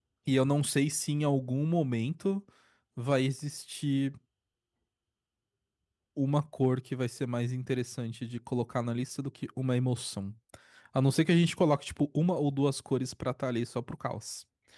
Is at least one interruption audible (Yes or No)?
No